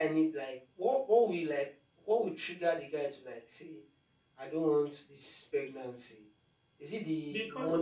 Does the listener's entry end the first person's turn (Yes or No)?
No